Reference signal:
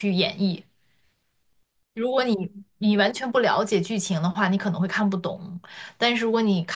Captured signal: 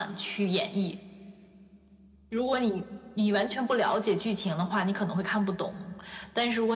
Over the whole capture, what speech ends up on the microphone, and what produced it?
echo only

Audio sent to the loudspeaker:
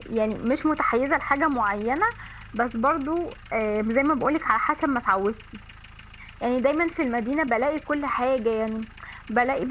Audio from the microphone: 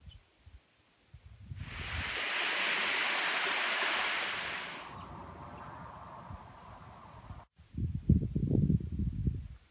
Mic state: neither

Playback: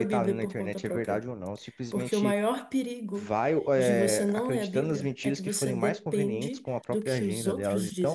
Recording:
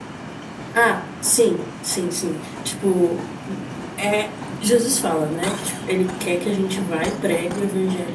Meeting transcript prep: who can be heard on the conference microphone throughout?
user only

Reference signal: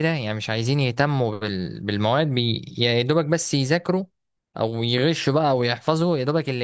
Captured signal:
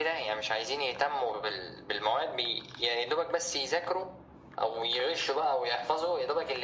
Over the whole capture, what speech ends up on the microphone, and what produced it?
echo only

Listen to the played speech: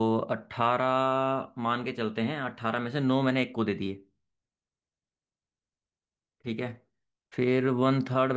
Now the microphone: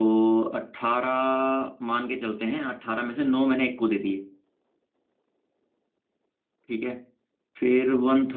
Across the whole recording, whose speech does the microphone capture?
echo only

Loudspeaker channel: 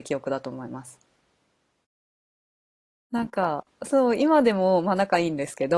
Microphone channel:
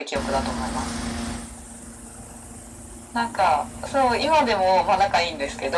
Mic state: echo only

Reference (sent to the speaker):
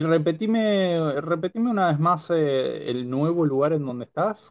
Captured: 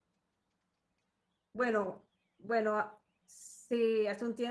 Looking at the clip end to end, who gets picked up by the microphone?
user only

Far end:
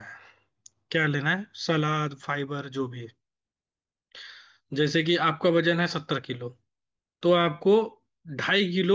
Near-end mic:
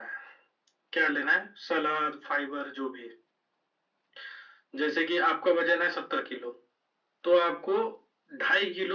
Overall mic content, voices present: echo only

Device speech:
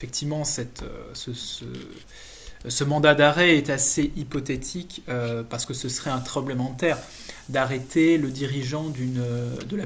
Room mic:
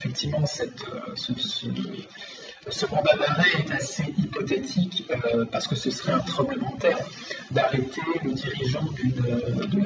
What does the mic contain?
both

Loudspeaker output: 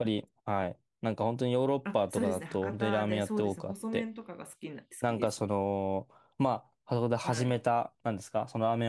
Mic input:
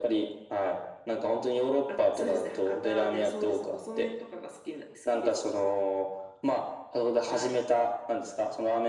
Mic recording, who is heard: echo only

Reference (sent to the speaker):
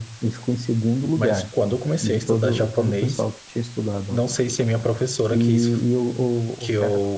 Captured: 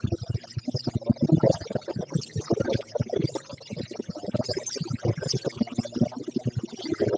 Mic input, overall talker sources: echo only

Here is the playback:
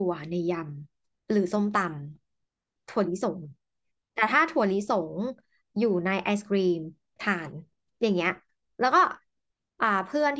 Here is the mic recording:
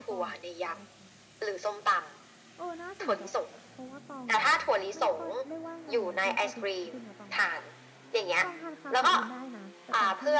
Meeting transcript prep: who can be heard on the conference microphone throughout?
both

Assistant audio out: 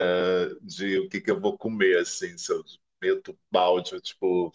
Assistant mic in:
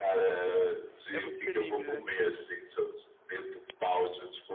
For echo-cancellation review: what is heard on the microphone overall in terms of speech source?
both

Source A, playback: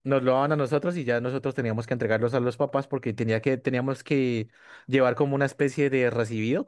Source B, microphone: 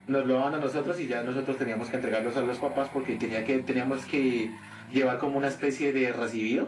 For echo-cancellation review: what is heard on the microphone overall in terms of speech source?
echo only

